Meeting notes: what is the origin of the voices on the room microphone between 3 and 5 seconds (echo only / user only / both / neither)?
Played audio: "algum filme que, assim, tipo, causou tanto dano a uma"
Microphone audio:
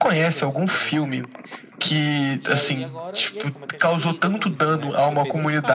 both